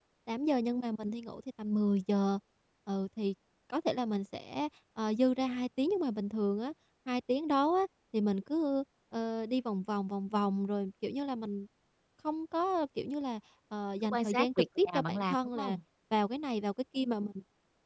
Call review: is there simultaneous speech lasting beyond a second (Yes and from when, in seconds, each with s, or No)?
Yes, from 14.0 s